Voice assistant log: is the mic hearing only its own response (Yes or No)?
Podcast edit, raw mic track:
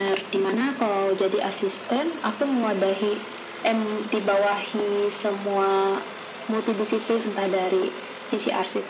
Yes